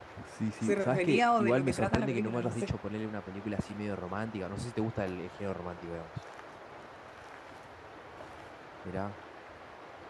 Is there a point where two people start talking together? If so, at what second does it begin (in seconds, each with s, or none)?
0.6 s